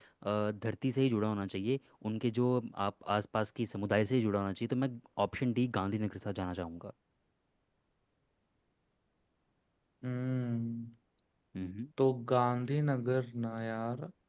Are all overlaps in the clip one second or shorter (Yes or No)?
Yes